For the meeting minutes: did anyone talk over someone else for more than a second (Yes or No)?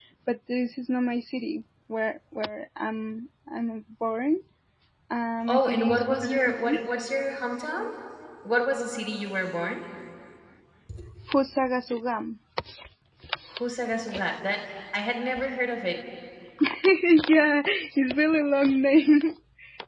Yes